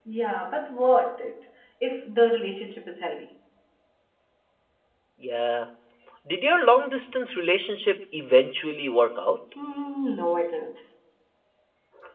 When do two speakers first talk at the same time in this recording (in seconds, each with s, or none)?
none